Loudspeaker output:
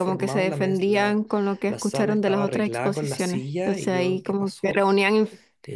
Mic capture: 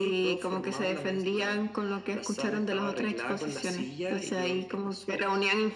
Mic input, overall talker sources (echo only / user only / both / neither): echo only